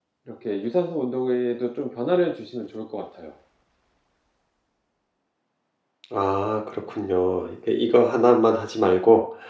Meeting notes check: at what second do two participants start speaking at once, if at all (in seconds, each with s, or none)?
none